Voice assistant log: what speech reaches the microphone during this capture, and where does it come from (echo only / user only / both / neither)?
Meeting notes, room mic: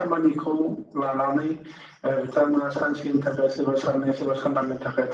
echo only